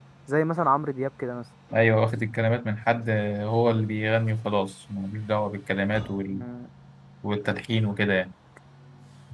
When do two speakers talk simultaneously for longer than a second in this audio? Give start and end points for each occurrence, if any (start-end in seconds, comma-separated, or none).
none